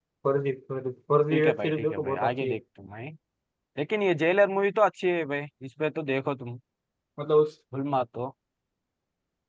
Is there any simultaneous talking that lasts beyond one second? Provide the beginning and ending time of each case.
1.3-2.6

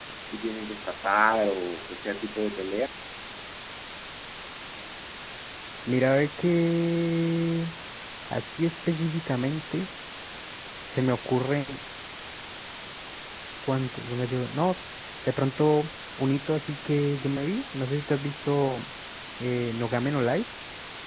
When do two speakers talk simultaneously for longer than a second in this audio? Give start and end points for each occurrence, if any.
none

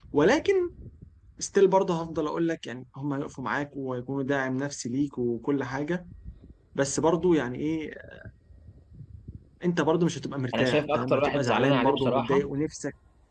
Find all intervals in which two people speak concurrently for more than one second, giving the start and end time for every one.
10.5-12.5

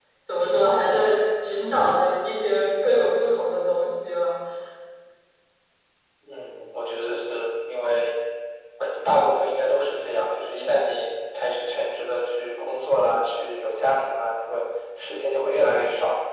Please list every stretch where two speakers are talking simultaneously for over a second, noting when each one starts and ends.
none

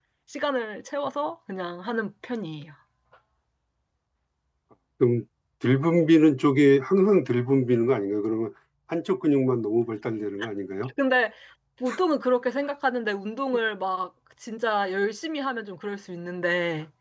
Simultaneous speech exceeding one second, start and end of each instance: none

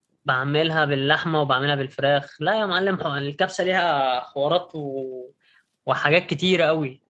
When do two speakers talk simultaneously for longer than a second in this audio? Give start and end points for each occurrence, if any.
none

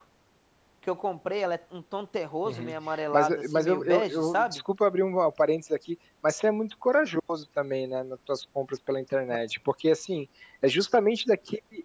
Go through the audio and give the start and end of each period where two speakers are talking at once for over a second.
3.1-4.6

